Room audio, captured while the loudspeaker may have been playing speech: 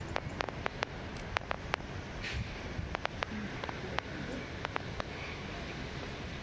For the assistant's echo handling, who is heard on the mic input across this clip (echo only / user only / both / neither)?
neither